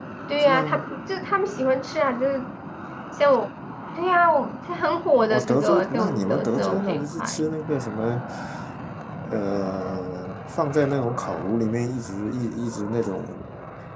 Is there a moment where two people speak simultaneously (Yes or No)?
Yes